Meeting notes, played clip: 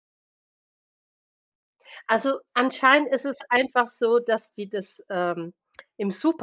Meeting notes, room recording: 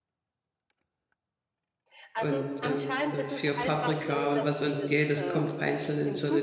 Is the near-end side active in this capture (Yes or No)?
Yes